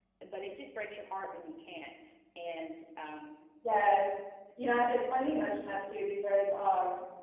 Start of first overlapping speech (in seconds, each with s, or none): none